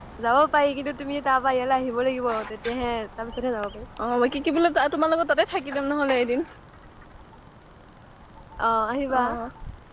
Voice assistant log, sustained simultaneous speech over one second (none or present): none